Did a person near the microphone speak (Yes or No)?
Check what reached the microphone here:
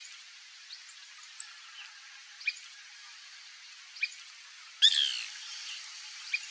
No